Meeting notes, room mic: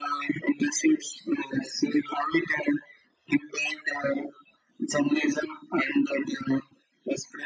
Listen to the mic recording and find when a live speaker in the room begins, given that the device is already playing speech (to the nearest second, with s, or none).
none